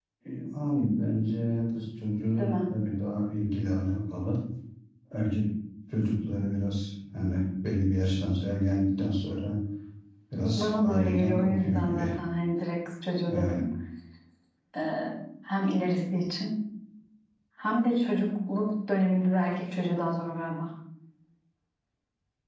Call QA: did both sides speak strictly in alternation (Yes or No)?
No